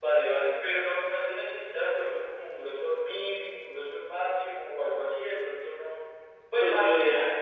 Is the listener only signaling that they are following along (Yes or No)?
No